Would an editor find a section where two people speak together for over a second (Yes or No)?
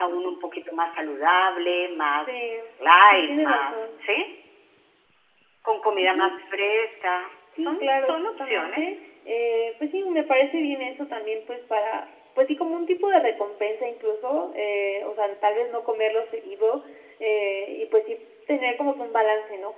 Yes